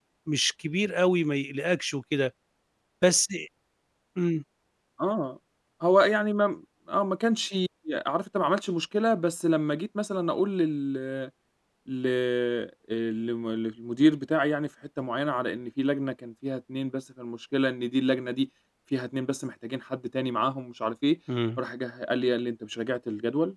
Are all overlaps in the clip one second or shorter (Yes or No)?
Yes